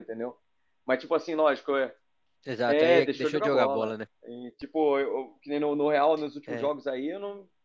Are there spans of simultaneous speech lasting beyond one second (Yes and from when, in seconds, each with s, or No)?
Yes, from 2.7 s